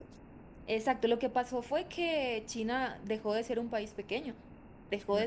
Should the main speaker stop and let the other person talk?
Yes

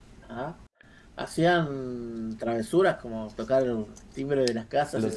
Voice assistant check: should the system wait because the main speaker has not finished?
No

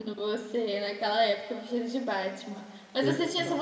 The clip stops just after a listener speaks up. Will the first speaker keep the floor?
Yes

